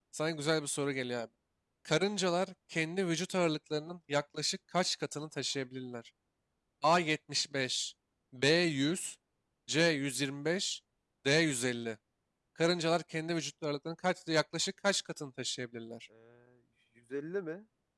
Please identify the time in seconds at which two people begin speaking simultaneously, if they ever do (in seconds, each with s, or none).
none